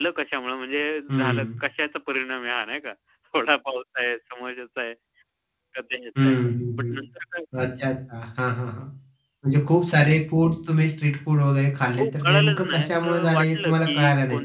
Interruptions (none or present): present